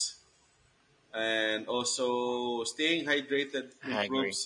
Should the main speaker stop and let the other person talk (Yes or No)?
No